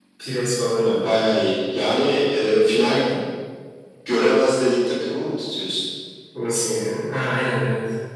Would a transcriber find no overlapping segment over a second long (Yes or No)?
Yes